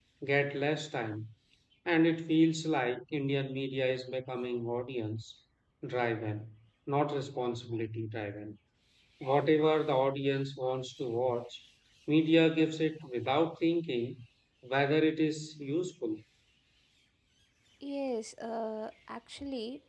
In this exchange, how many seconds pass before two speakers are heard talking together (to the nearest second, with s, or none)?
none